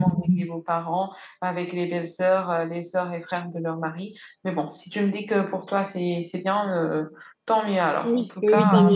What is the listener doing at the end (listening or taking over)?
taking over